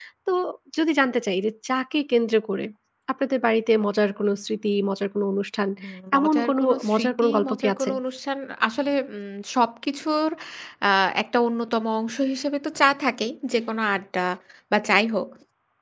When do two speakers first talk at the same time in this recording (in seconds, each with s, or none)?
6.2 s